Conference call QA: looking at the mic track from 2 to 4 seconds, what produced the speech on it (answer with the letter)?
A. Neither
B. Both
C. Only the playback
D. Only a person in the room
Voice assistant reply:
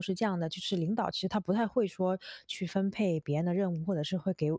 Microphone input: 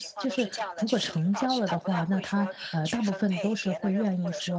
B